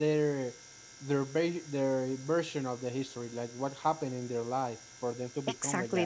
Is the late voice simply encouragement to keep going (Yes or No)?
No